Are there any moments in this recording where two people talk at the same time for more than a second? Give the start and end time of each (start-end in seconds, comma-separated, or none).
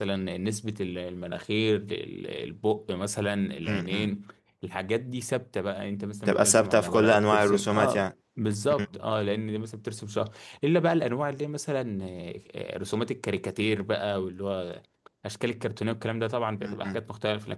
6.3-8.0